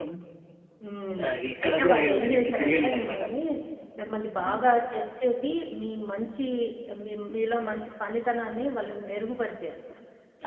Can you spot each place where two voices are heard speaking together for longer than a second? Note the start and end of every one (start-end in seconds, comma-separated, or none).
1.6-3.2